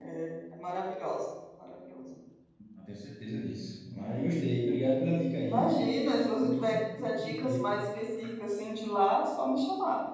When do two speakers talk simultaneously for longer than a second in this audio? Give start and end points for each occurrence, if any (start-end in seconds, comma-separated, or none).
6.4-7.7